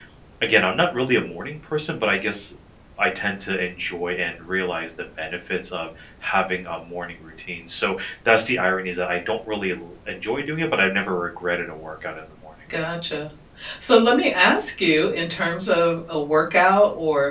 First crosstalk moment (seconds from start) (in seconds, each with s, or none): none